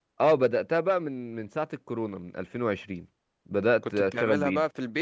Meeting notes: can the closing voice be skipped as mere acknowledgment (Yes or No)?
No